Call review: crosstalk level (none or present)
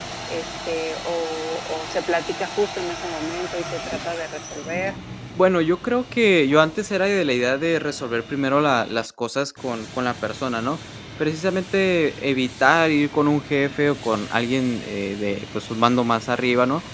none